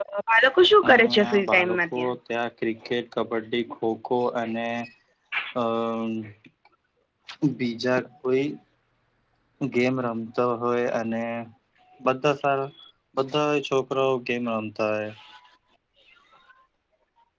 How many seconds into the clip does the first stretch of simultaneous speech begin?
1 s

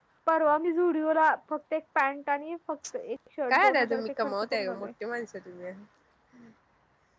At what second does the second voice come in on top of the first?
4 s

